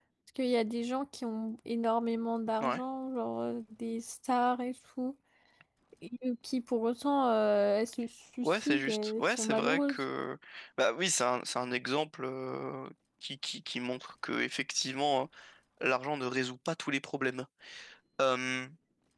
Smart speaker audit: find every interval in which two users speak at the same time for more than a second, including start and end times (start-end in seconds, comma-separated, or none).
8.4-10.0